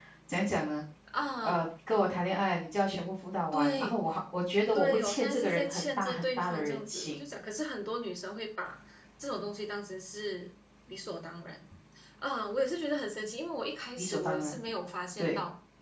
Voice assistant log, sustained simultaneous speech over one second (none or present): present